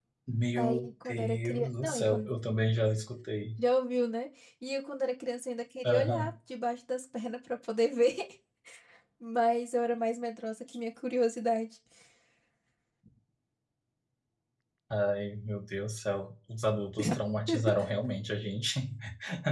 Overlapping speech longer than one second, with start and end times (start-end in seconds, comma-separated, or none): 0.6-2.3